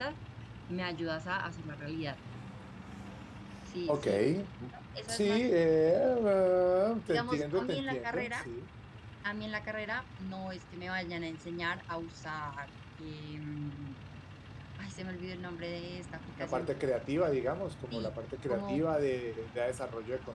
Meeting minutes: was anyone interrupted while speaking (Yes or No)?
Yes